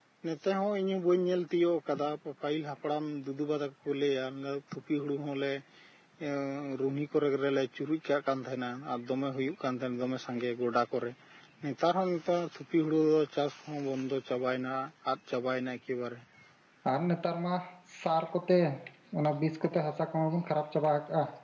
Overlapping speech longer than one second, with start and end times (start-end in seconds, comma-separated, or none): none